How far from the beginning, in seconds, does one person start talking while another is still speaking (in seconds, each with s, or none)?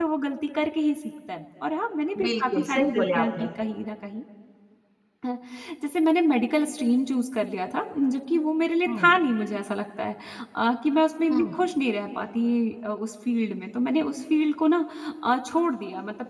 2.1 s